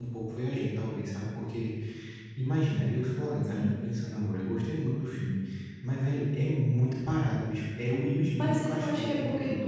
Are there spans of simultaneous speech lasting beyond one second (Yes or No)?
Yes